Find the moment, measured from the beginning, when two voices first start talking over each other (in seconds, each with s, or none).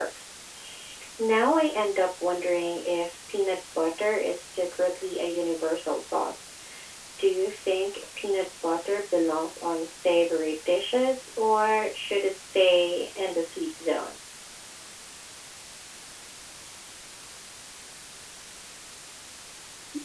none